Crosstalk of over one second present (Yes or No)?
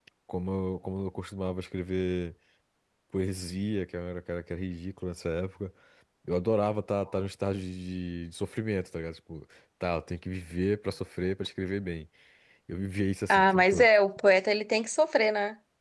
No